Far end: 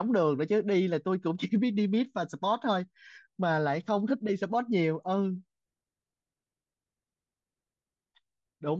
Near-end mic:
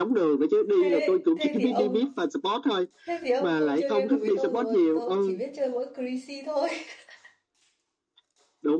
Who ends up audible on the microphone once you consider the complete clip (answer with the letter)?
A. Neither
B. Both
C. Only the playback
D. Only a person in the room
B